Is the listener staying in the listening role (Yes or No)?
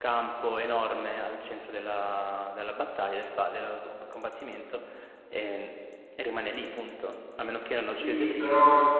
No